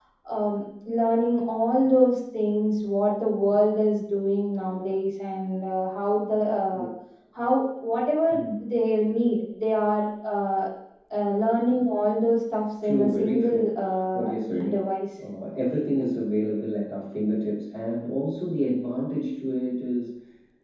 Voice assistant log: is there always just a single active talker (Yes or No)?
No